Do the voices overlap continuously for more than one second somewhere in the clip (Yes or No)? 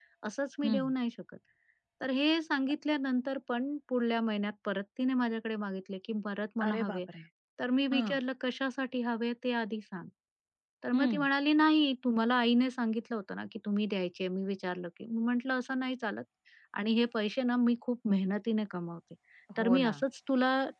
No